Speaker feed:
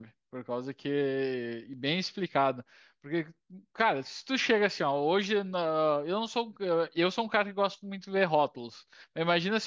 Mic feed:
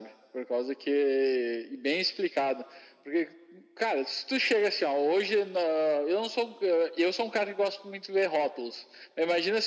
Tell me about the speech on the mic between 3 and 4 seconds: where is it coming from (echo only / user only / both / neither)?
echo only